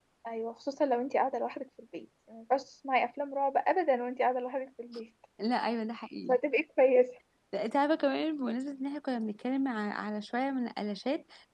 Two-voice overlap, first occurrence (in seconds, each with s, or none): none